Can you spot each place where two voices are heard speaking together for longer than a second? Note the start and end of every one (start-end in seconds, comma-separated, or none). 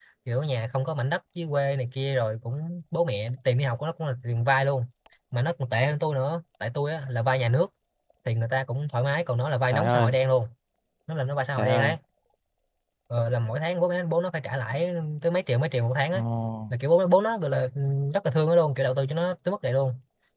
none